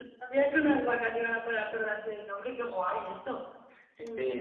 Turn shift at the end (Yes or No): Yes